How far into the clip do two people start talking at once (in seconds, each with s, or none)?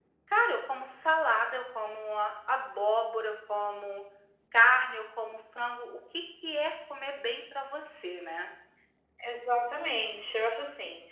none